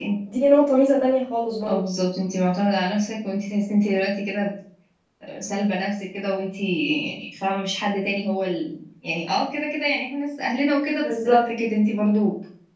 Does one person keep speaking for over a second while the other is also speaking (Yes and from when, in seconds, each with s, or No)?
No